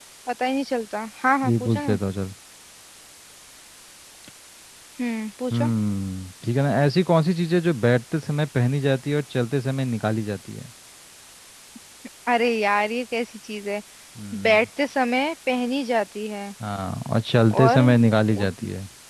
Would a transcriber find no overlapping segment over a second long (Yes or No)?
Yes